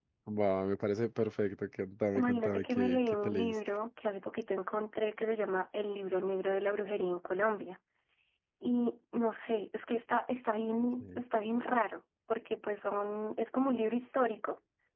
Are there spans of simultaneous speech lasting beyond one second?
Yes, from 2.1 s

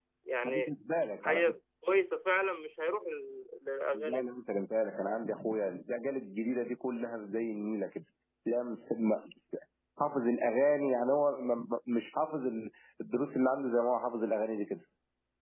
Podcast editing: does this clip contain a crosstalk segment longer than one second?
No

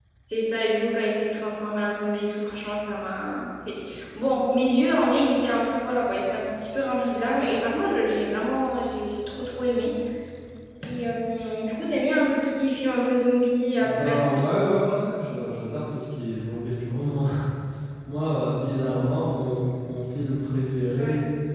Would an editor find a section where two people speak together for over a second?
Yes, from 13.8 s

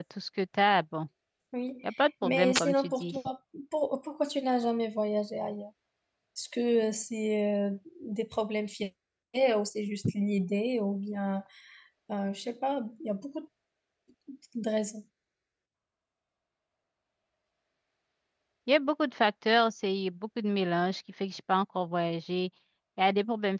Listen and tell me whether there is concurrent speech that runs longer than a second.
Yes, from 1.9 s

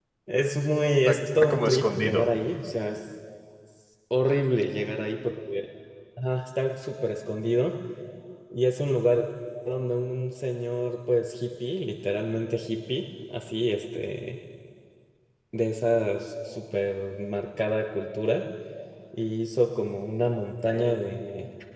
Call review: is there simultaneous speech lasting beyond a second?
Yes, from 1.0 s

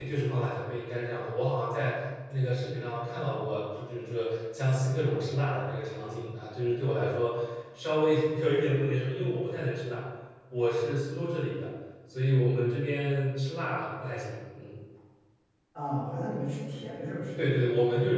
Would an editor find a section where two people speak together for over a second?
No

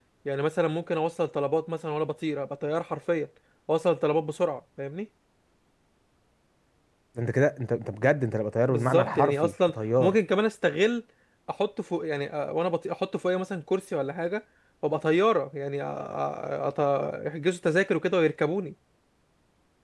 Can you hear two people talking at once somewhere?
Yes, from 8.7 s

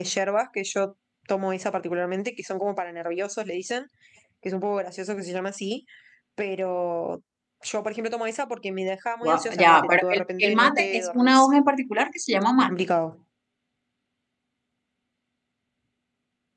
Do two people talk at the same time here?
Yes, from 9.2 s

